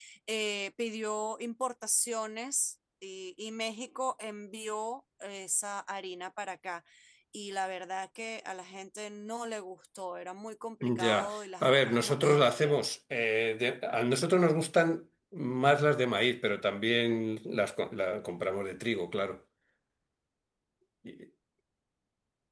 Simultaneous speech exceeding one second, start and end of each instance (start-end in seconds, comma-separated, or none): 10.8-12.8